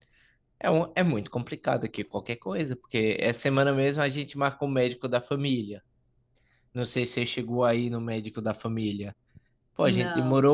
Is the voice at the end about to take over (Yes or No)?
No